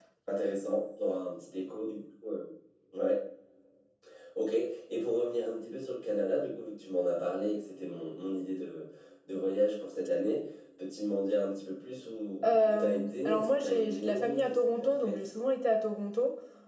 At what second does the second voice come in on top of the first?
12 s

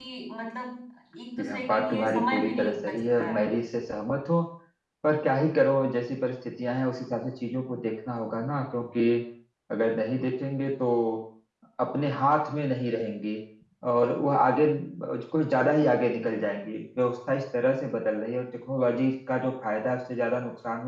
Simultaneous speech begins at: 1 s

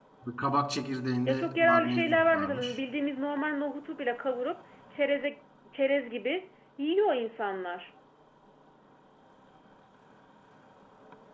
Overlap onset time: 1 s

